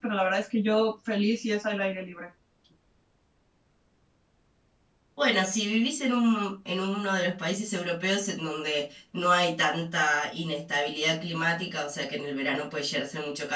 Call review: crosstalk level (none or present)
none